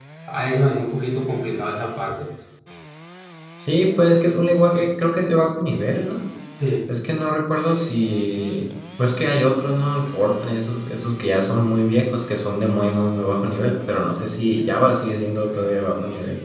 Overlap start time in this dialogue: none

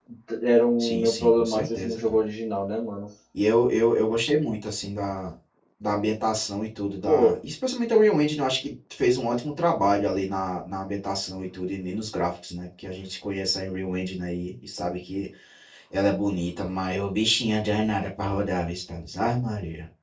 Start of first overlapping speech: 0.8 s

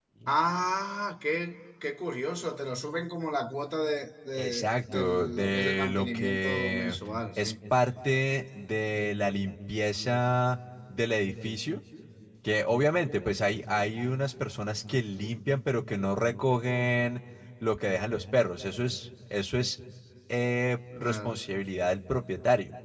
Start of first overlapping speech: 4.3 s

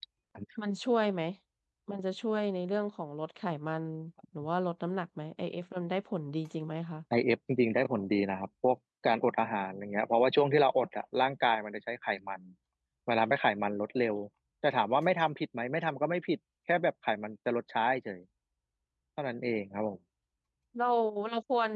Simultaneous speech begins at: none

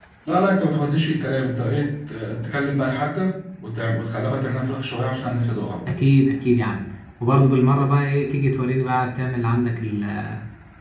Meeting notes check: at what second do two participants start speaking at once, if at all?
none

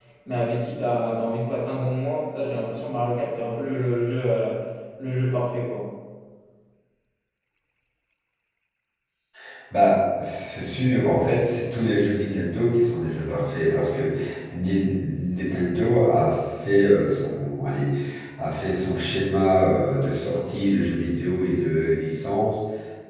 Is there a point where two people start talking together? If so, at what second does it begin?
none

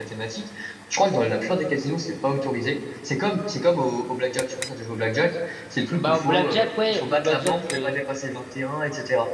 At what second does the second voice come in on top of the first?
5.9 s

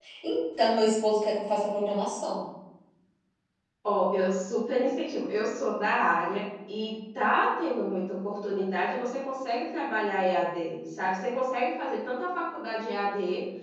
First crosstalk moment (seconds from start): none

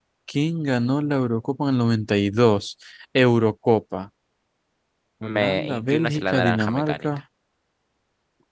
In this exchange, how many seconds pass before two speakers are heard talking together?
5.2 s

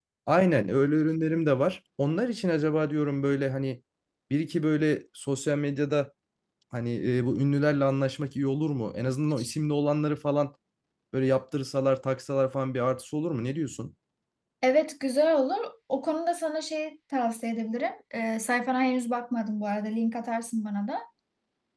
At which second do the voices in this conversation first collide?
none

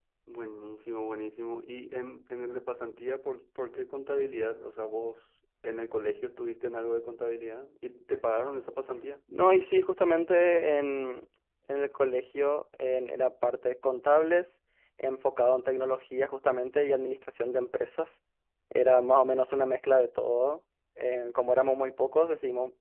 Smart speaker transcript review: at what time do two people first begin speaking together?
none

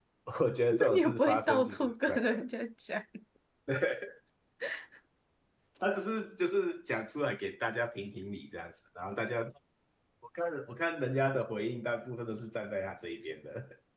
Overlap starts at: 0.7 s

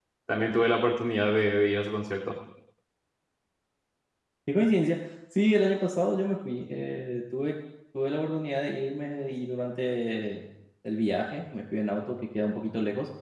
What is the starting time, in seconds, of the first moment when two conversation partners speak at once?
none

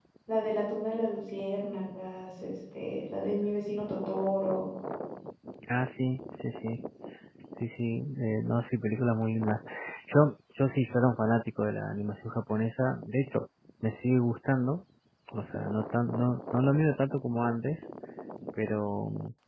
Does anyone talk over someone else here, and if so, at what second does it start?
none

